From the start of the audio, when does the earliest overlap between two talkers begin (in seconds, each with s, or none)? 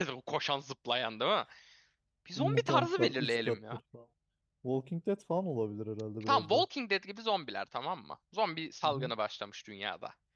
2.4 s